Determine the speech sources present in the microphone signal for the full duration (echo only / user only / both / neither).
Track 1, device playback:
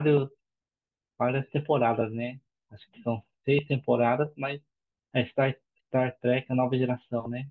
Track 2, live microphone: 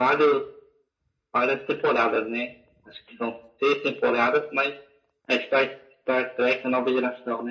echo only